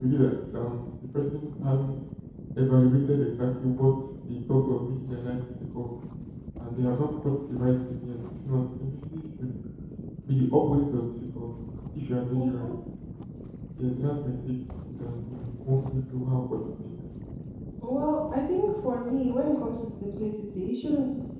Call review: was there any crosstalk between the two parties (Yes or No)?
No